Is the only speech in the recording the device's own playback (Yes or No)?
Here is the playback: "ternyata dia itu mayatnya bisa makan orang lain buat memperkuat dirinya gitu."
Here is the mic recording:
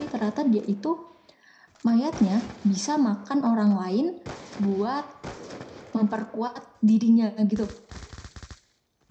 Yes